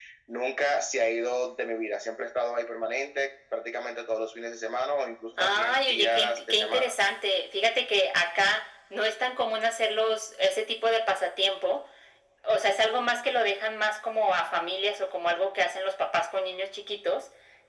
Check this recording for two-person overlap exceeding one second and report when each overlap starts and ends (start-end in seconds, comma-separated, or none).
5.4-6.9